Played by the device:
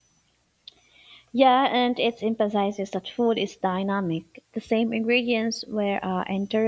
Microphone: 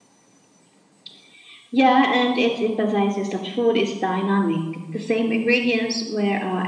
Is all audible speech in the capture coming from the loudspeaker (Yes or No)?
Yes